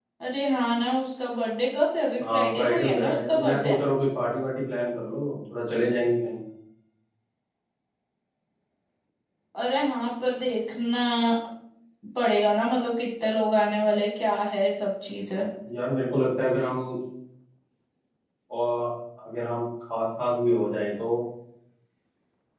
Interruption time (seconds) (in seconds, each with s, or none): 2.2 s